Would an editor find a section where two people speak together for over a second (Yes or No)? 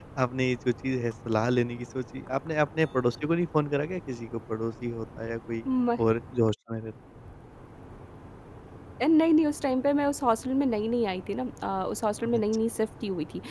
No